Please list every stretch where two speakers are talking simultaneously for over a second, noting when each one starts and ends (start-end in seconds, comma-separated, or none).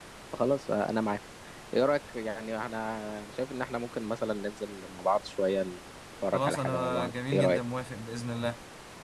6.3-7.6